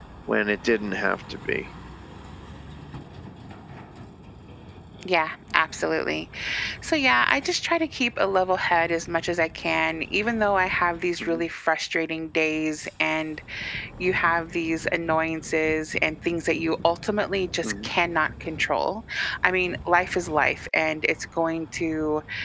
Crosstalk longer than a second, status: none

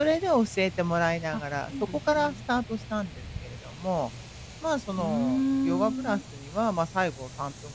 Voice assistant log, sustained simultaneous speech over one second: present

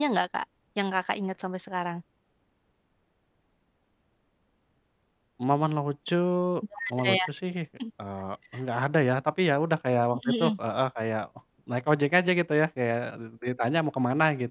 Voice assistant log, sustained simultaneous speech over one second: none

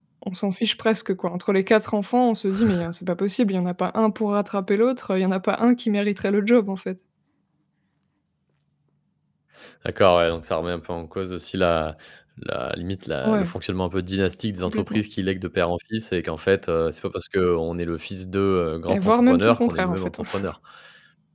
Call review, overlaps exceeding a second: present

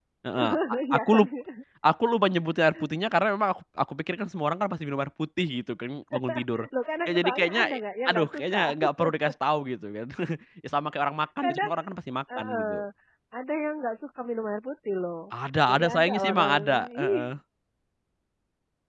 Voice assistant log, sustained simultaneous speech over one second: present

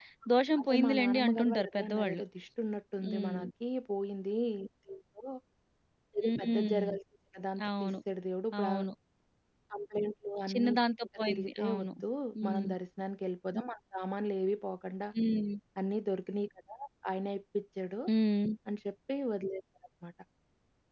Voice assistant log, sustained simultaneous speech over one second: present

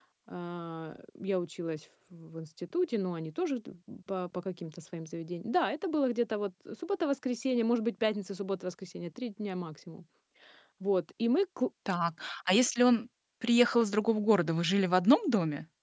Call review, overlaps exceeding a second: none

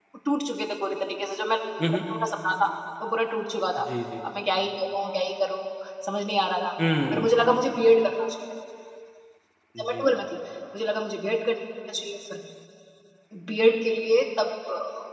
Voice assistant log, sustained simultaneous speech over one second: none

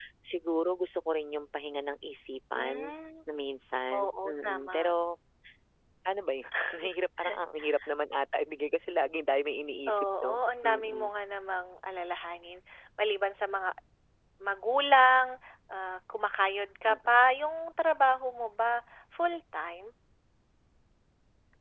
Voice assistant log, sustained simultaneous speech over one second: present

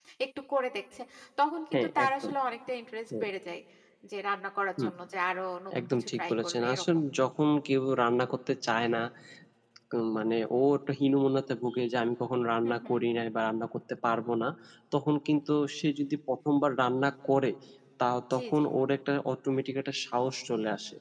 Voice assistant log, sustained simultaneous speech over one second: present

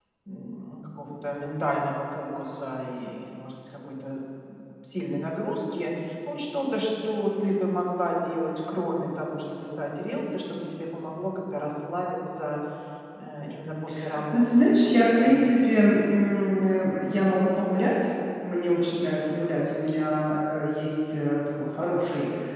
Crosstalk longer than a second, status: present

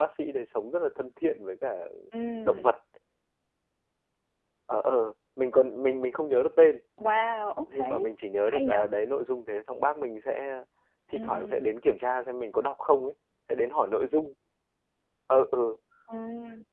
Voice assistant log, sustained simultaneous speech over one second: none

